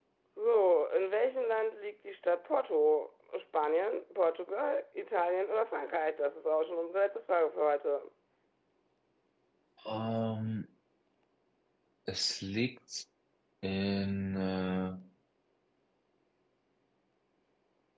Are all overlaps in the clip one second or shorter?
Yes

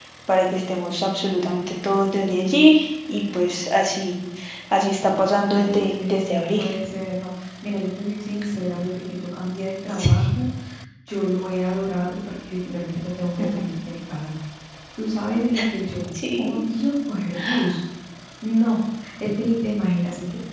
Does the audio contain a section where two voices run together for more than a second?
Yes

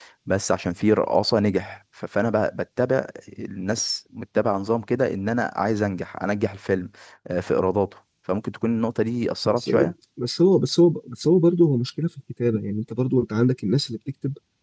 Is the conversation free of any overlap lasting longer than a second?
Yes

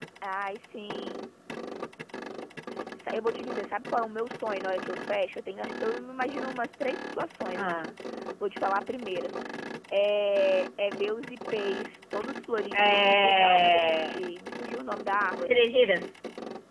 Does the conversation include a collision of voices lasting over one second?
Yes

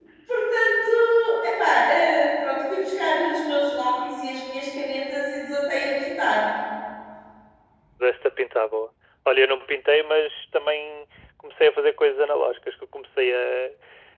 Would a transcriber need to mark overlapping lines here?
No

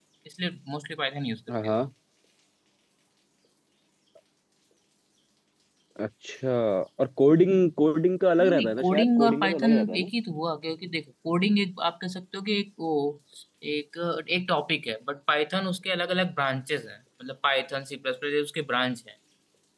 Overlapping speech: Yes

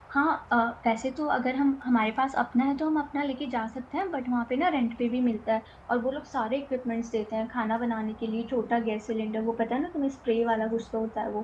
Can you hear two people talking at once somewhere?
No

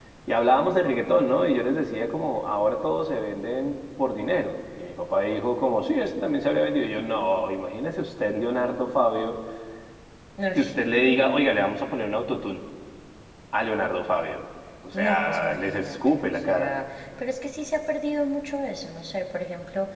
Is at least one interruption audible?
Yes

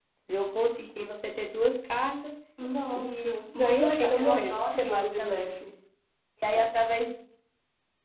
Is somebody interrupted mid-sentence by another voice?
Yes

